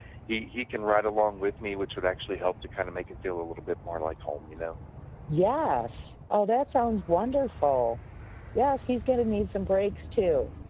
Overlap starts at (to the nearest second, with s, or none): none